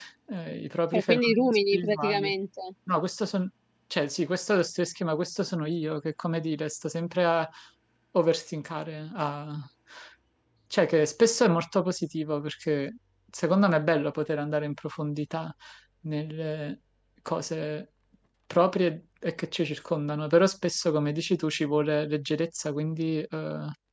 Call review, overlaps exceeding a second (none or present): present